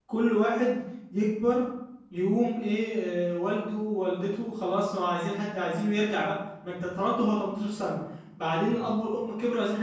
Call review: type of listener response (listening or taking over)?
listening